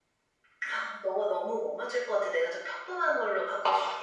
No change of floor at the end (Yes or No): No